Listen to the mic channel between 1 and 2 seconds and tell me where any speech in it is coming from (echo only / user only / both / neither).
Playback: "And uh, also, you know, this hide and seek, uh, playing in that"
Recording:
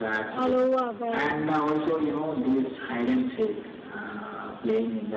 both